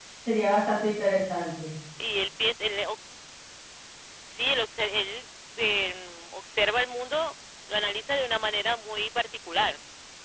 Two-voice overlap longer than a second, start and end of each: none

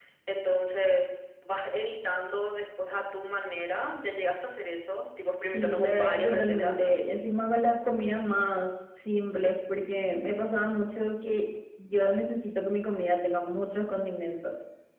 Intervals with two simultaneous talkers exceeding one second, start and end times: 5.5-6.8

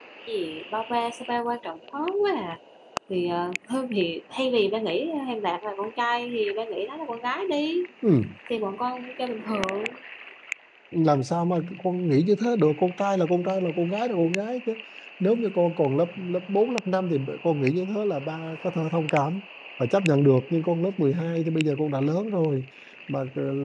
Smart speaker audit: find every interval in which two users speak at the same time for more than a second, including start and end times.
none

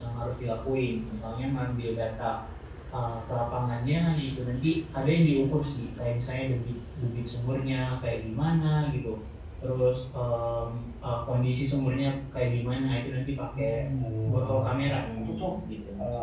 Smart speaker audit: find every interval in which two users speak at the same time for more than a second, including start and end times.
14.3-15.5

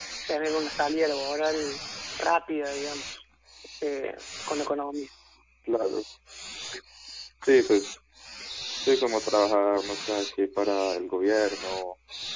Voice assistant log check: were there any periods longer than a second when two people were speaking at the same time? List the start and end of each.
none

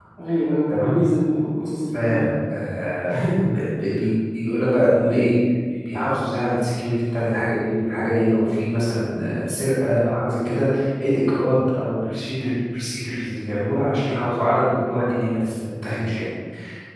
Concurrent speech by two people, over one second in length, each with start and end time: none

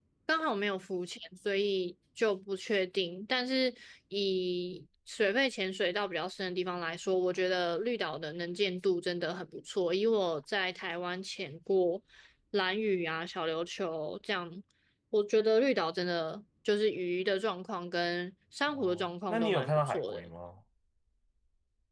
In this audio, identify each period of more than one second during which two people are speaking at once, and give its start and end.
18.7-20.3

